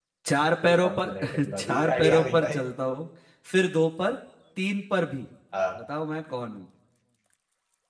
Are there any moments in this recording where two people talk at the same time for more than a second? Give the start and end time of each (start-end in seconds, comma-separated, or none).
0.6-2.6